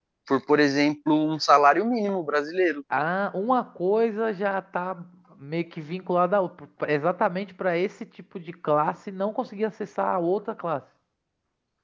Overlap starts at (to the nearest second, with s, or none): none